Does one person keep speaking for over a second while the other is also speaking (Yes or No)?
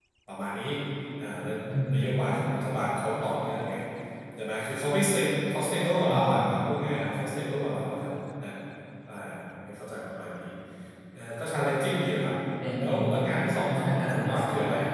Yes